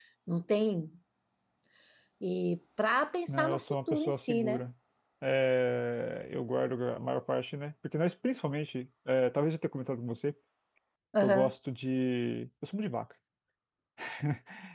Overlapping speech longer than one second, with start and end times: 3.4-4.6

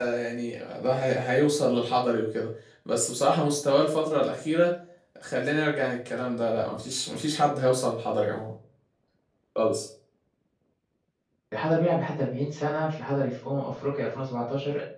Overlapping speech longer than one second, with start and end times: none

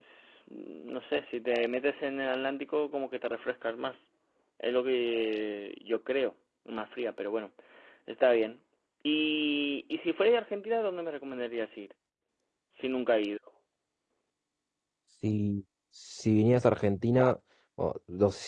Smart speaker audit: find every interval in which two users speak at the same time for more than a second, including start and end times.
none

